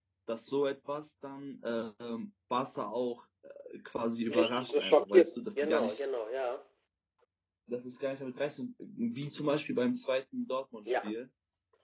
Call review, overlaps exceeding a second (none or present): present